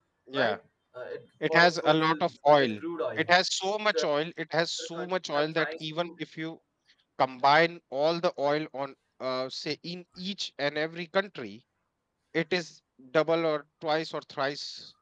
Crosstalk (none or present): present